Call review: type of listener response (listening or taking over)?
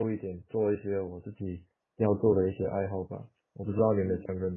taking over